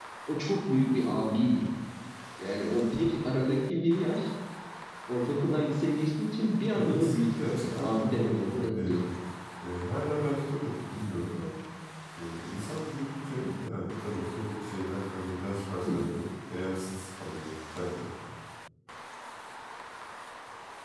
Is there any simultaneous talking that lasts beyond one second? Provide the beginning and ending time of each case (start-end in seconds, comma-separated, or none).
6.7-9.0